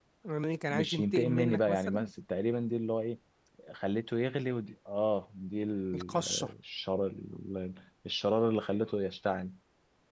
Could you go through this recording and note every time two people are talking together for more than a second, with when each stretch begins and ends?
0.7-2.1

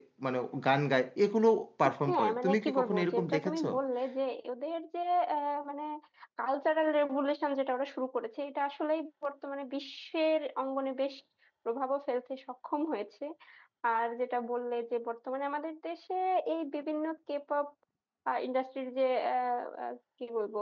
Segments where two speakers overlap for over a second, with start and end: 2.1-3.7

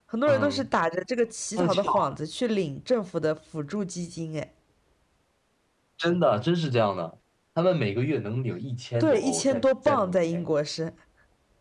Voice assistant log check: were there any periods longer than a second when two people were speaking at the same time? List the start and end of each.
9.0-10.4

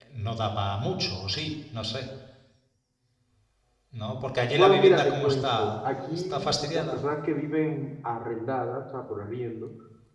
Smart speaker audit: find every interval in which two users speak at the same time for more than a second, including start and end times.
4.5-7.0

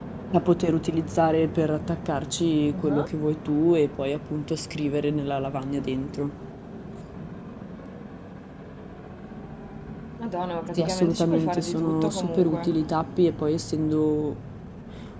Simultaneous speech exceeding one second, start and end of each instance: 10.8-12.7

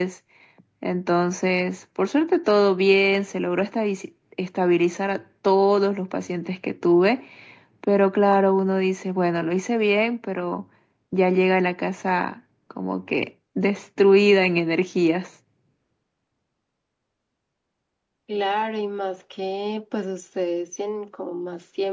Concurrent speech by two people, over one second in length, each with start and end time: none

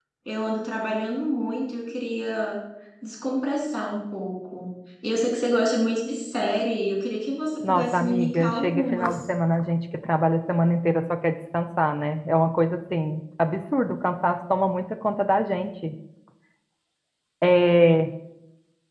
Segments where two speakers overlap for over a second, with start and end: 7.6-9.2

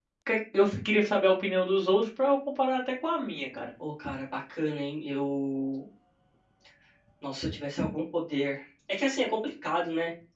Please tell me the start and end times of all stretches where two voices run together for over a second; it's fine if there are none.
none

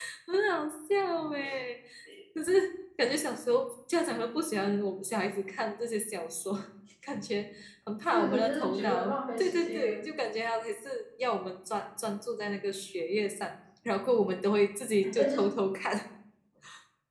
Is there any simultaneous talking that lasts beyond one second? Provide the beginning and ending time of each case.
8.1-10.1

